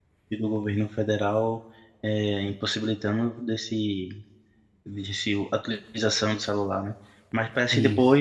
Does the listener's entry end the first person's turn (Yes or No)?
No